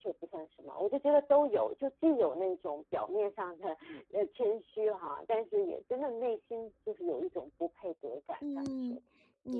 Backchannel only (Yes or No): No